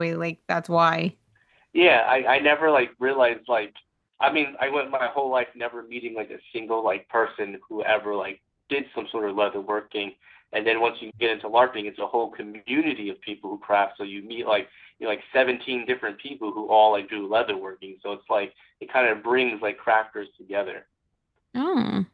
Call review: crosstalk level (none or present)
none